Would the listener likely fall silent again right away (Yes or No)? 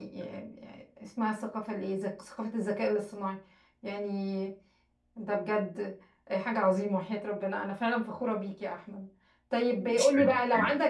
Yes